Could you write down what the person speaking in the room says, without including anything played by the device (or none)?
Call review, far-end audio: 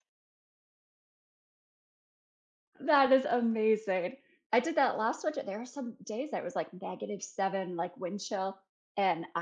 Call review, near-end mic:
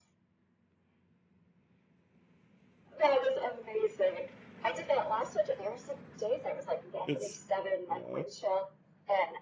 It's yeah.